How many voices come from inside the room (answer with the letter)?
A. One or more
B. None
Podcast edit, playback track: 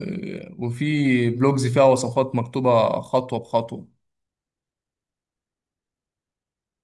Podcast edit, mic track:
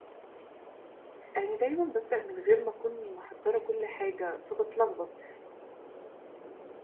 A